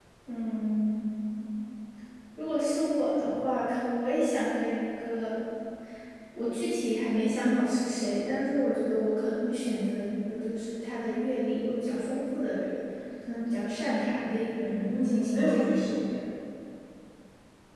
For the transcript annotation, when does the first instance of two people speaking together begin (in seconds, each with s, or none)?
14.5 s